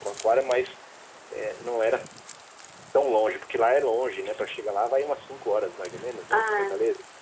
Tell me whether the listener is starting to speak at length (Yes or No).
Yes